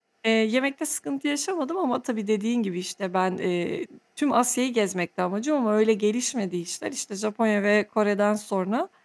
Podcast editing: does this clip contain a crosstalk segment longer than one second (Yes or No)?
No